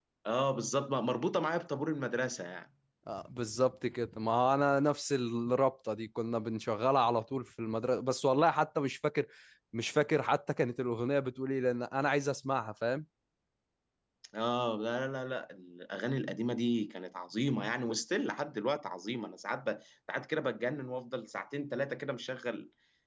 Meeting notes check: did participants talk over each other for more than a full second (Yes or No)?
No